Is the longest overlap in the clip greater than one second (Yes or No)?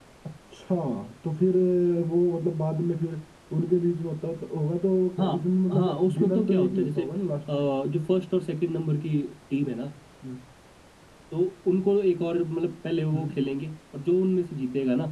Yes